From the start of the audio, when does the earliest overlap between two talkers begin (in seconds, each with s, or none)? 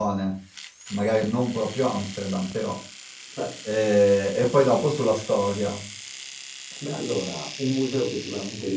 none